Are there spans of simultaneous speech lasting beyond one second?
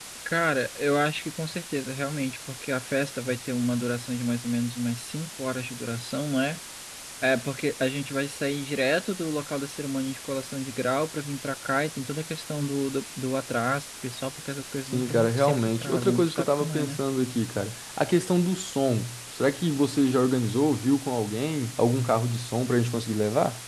Yes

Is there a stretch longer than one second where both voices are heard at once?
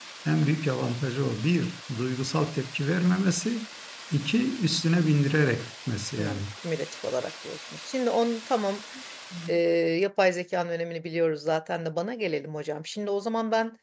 No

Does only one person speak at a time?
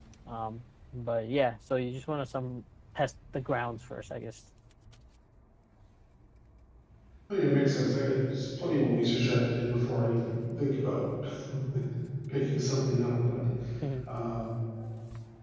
Yes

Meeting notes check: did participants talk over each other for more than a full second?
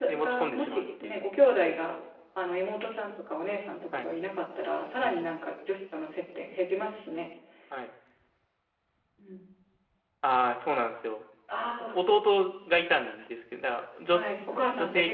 Yes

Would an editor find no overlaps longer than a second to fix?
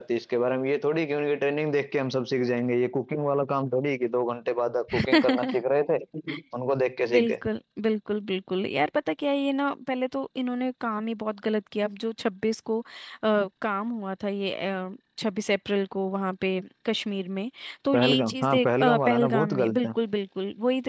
No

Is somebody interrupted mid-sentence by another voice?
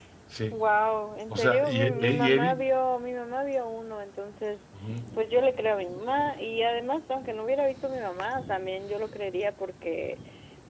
Yes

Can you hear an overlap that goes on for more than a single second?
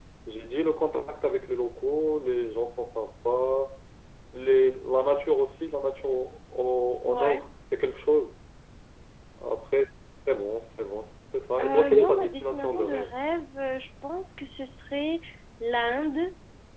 Yes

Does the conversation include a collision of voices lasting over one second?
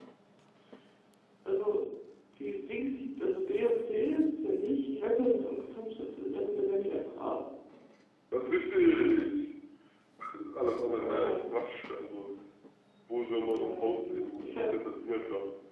Yes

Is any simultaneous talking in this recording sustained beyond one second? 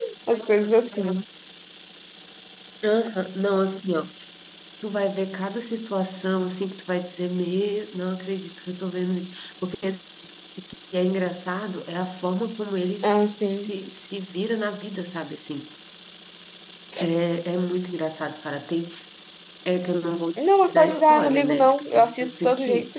Yes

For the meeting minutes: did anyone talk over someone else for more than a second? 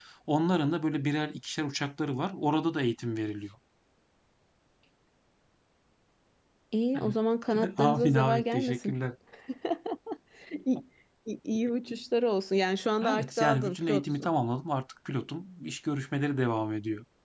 Yes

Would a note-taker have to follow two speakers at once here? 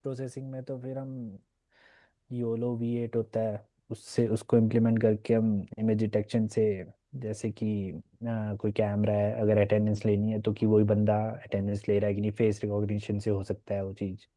No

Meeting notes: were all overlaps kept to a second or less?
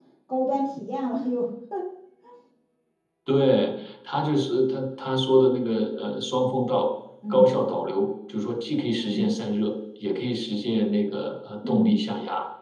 Yes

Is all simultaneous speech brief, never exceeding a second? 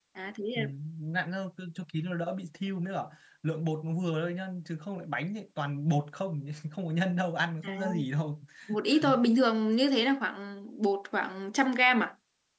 Yes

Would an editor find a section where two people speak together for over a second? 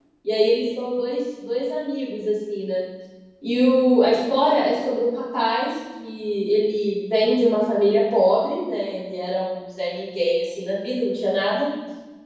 No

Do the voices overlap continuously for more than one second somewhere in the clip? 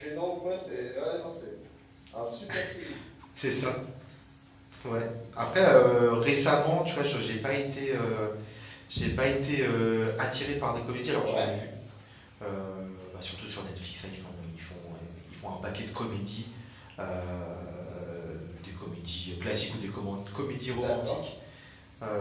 No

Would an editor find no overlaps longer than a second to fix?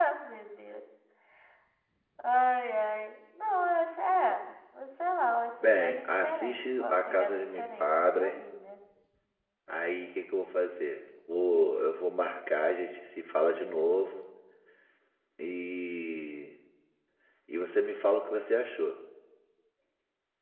No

